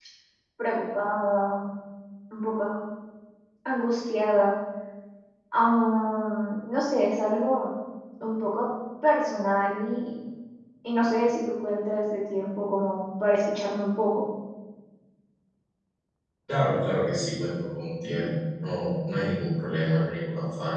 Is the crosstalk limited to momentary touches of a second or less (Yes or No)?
Yes